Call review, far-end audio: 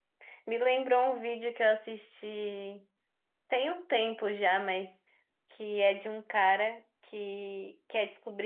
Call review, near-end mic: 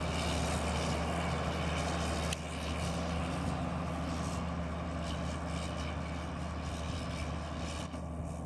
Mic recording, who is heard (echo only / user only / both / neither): neither